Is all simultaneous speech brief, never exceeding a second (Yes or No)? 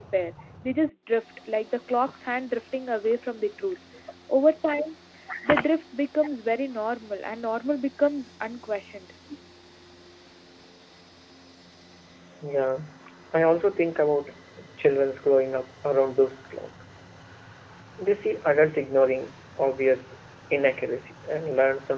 Yes